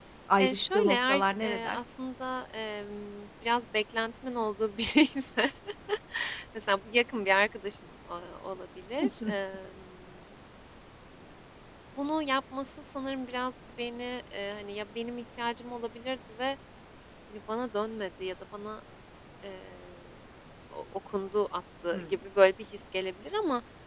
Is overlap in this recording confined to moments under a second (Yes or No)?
No